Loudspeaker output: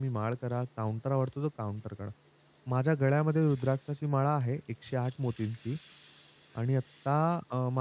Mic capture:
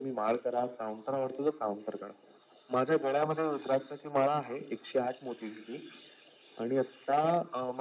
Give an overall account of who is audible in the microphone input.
echo only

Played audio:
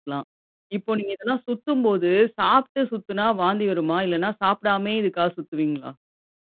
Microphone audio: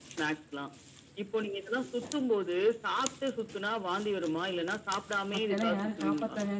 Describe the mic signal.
both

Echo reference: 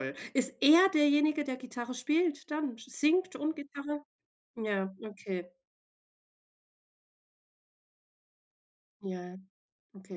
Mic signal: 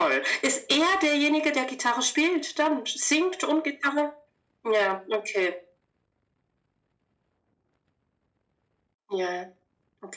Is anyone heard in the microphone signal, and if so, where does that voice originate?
echo only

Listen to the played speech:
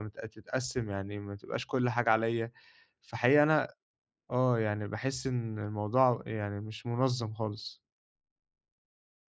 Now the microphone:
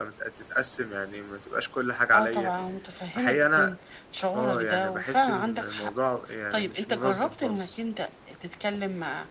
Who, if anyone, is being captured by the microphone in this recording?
both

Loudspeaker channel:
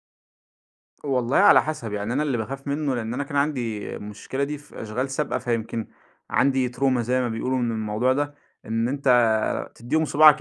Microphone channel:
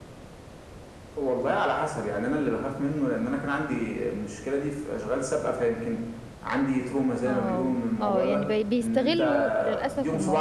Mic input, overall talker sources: both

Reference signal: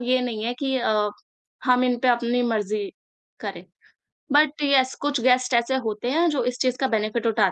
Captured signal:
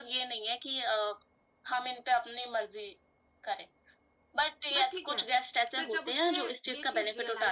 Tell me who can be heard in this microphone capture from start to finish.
both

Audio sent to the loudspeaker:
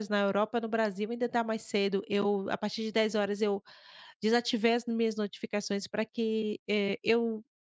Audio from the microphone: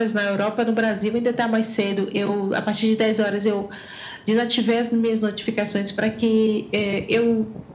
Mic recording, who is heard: echo only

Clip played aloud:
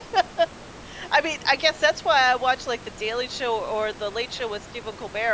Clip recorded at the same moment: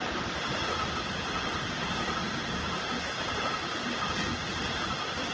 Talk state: neither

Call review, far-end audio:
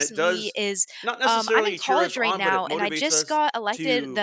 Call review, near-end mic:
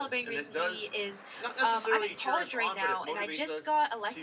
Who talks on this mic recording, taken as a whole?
echo only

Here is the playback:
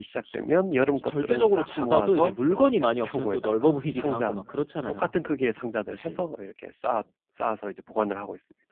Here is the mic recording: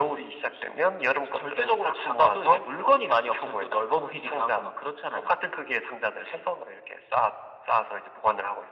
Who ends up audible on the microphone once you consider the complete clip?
echo only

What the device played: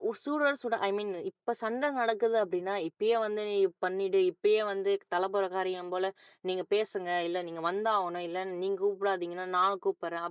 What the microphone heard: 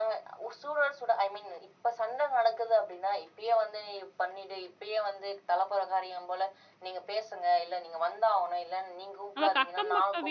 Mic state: both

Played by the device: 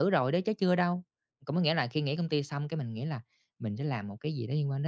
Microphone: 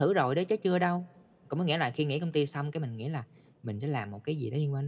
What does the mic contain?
echo only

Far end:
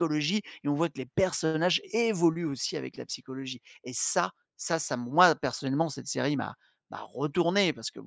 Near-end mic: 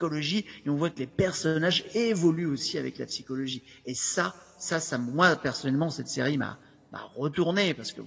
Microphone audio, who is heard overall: echo only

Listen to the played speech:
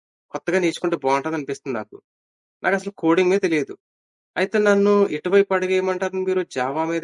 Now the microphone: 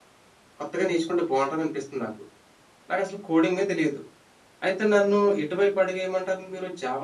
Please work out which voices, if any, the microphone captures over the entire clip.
echo only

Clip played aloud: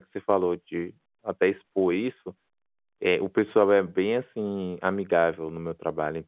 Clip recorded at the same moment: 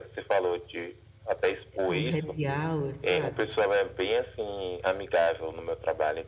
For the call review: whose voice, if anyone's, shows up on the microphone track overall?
both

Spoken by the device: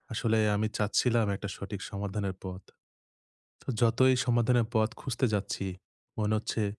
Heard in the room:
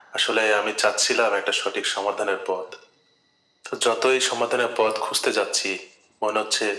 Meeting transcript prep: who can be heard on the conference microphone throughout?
echo only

